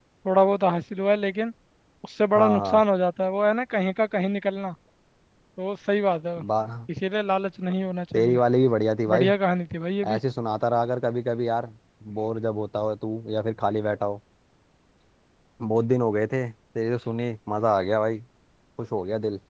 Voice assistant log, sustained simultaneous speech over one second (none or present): none